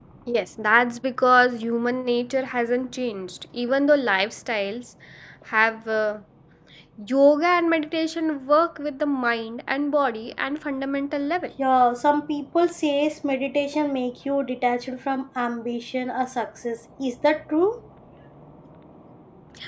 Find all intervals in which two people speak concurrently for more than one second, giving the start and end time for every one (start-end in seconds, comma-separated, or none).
none